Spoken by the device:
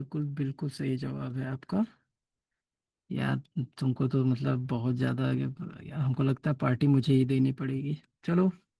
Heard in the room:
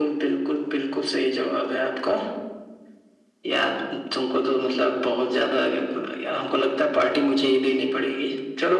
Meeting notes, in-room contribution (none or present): none